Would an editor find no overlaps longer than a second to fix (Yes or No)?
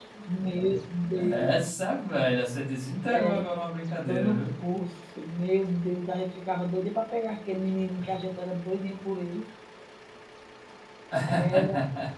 Yes